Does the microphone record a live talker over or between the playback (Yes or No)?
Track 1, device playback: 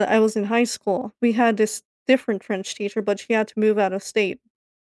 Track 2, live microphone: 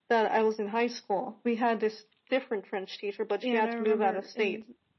Yes